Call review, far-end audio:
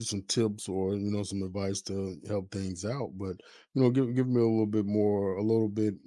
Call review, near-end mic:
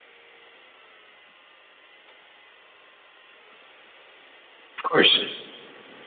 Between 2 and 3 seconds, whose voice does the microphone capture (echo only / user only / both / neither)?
neither